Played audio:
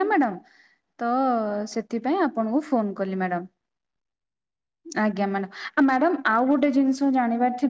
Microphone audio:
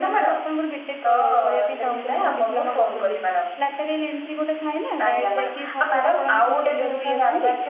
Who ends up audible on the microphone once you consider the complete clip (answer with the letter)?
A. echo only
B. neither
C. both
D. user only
C